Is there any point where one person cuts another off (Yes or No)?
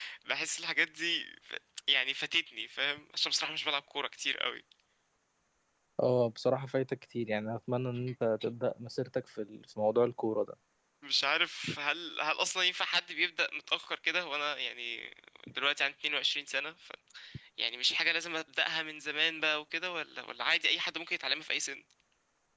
No